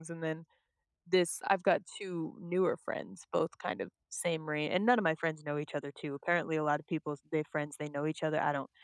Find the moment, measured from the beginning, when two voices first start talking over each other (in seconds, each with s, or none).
none